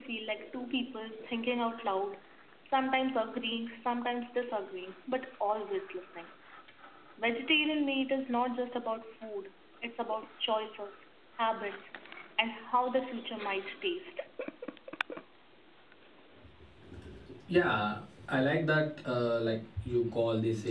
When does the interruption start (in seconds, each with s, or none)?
none